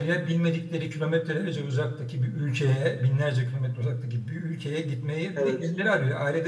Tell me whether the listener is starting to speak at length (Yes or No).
No